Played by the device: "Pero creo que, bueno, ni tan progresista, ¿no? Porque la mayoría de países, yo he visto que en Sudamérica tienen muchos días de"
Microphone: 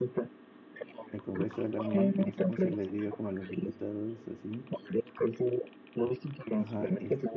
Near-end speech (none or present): present